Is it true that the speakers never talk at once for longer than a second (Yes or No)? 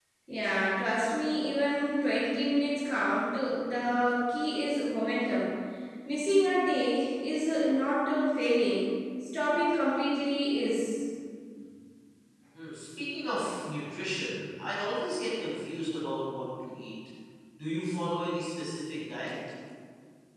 Yes